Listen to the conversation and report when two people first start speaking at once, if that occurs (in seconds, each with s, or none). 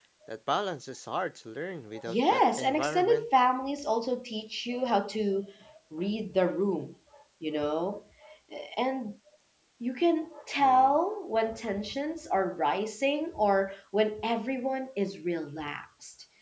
2.0 s